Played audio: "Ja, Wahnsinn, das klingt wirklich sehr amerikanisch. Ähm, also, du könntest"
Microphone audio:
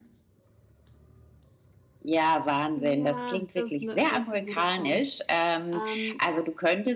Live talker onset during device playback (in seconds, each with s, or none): 2.8 s